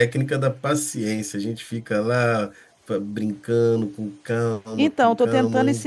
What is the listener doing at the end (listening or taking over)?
taking over